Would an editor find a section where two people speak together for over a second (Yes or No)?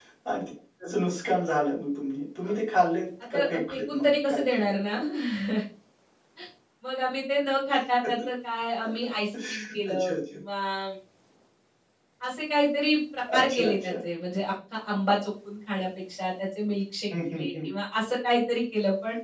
Yes